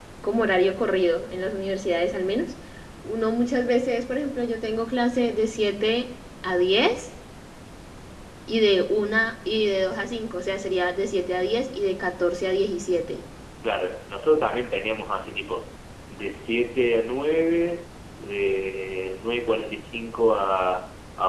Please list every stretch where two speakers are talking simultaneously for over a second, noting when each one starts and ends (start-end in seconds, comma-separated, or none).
none